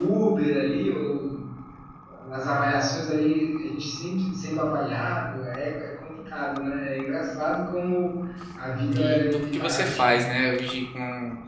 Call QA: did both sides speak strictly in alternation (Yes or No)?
No